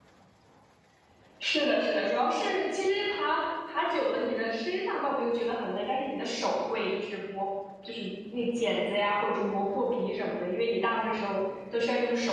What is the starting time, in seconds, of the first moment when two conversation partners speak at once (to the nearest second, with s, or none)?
none